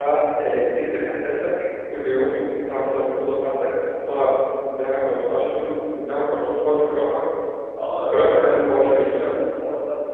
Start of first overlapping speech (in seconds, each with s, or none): 7.8 s